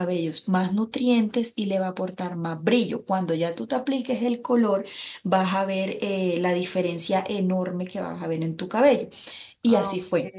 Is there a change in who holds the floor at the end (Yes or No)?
Yes